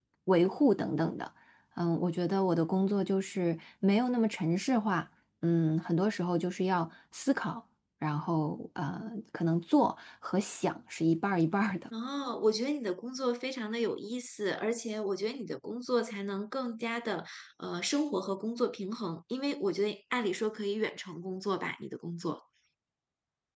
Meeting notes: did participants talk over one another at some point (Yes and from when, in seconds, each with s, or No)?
No